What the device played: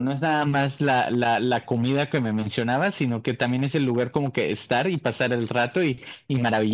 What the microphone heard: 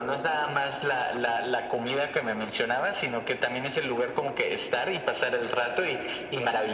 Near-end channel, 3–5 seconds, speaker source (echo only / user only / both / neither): echo only